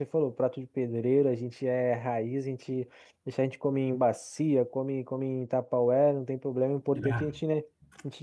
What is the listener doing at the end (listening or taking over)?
listening